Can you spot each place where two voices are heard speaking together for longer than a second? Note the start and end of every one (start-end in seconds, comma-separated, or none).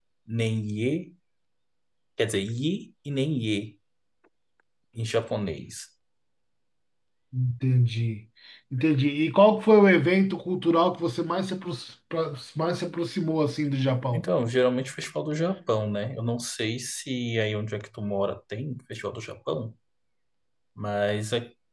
none